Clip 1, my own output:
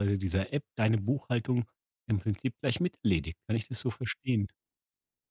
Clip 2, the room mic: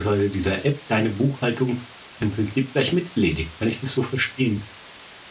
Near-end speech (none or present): none